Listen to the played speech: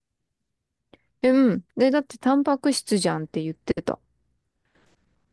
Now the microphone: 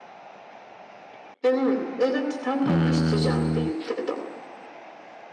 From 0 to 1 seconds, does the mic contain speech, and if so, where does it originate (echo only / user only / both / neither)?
neither